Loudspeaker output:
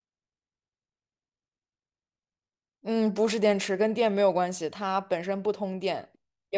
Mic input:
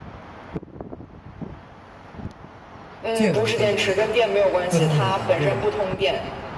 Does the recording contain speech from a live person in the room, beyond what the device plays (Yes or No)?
Yes